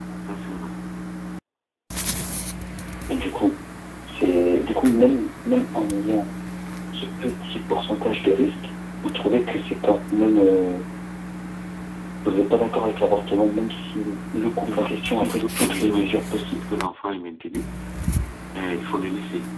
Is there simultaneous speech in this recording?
Yes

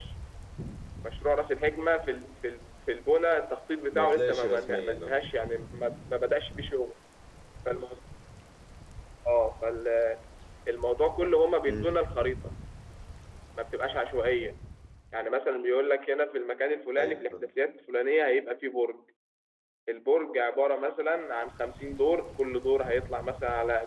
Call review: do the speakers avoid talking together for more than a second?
No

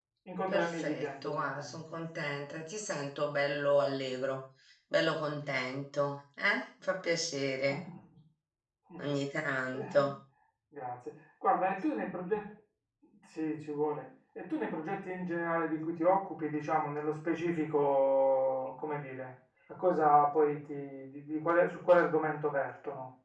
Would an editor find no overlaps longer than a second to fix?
No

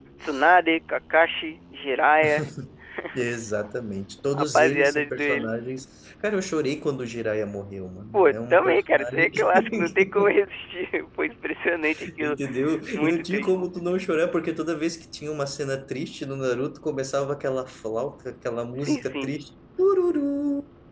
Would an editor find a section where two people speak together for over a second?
Yes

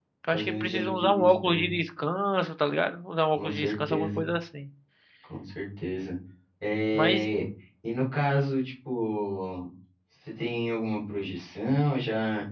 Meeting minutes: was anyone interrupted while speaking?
Yes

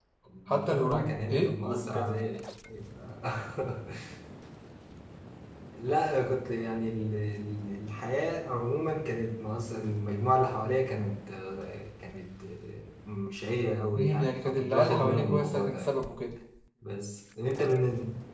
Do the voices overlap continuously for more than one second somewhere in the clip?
Yes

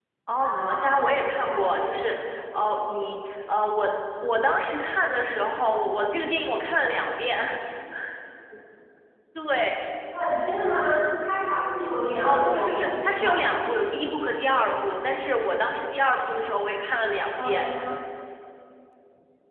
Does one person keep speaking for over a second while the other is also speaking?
Yes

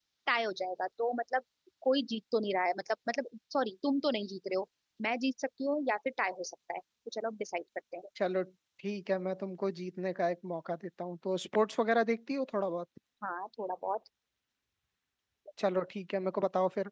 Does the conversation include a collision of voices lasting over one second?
No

